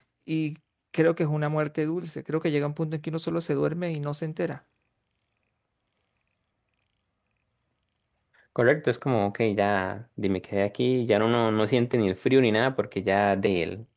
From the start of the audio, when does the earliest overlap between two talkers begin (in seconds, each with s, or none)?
none